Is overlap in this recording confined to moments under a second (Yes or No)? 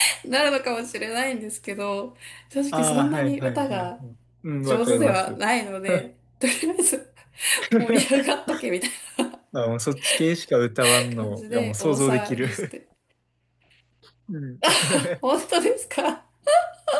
No